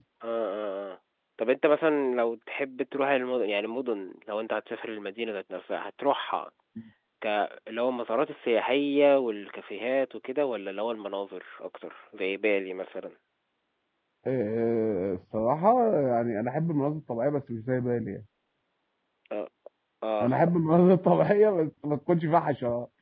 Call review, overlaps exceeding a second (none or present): none